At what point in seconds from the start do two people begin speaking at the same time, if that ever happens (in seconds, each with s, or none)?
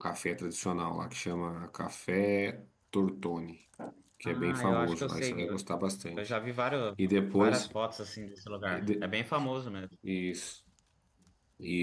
4.2 s